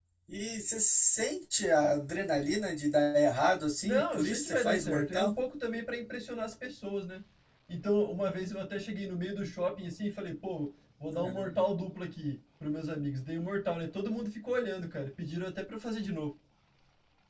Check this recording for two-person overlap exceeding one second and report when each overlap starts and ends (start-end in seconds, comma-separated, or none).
3.8-5.3